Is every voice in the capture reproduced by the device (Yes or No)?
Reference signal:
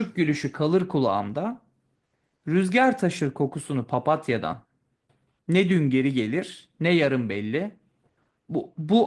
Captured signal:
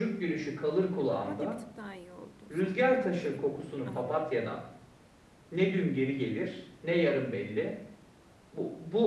No